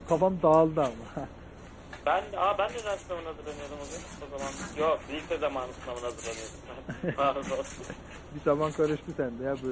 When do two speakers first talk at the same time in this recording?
none

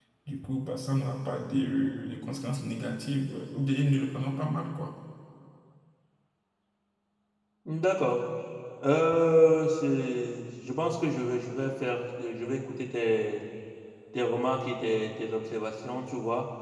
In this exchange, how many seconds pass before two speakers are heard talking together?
none

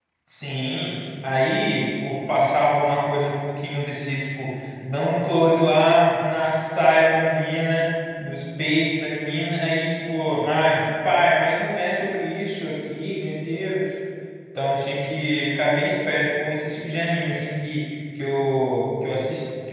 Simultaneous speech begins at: none

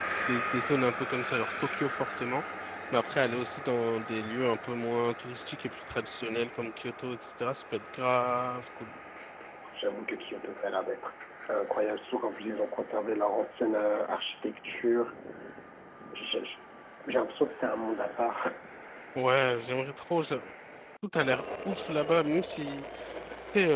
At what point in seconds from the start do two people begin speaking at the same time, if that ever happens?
none

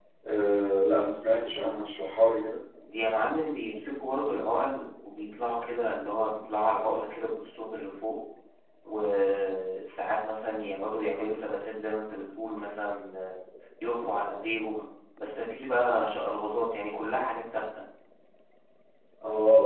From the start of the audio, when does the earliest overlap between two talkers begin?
none

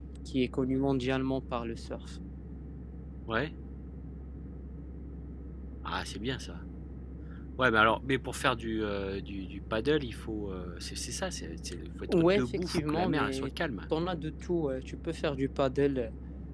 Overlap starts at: 12.1 s

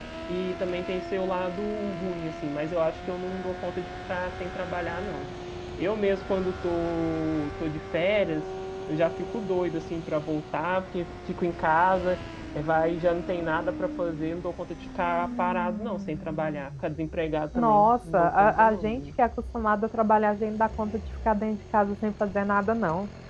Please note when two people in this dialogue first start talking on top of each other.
17.5 s

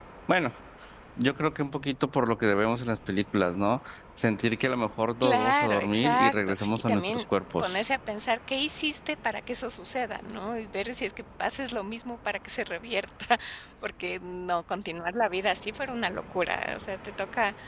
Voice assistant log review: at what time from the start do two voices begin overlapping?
5.2 s

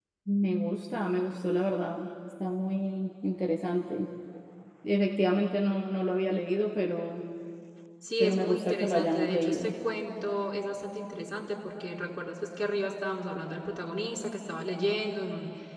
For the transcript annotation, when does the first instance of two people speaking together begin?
8.2 s

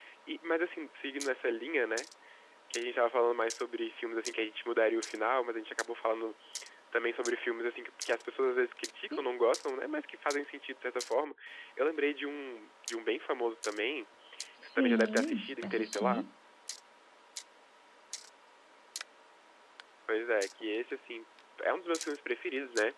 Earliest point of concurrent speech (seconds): 14.8 s

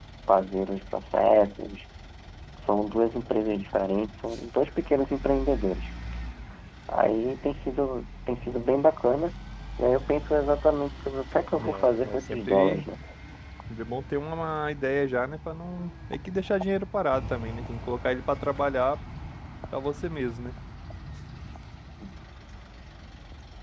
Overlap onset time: 11.6 s

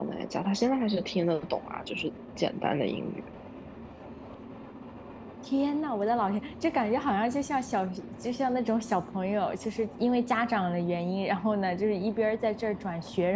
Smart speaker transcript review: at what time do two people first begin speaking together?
none

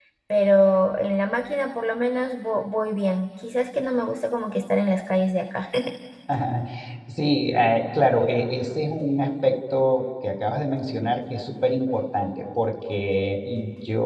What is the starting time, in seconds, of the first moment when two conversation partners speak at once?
none

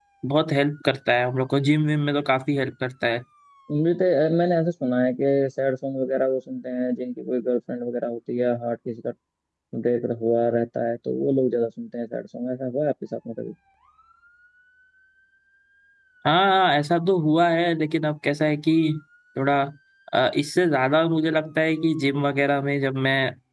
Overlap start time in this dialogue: none

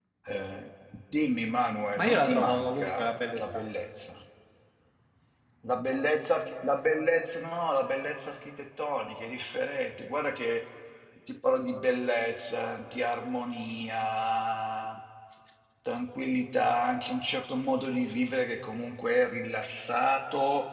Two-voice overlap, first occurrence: 2.0 s

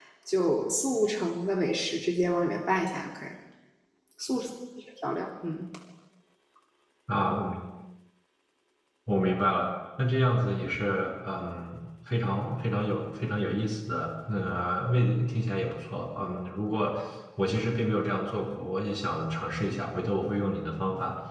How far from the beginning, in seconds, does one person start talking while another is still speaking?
none

